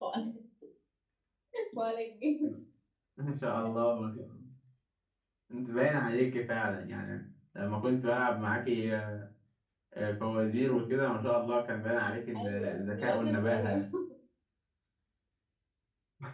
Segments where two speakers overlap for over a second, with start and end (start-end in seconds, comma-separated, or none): 12.4-13.7